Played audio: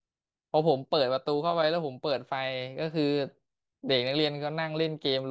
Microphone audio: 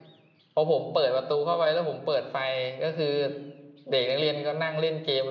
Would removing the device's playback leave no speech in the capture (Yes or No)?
Yes